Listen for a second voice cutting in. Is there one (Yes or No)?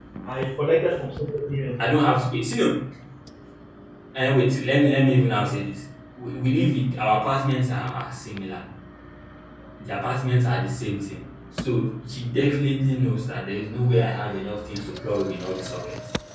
No